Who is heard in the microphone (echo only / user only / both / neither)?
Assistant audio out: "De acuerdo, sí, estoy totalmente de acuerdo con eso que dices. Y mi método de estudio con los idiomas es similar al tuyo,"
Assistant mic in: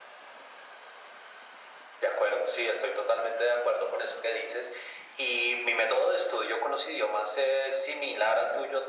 echo only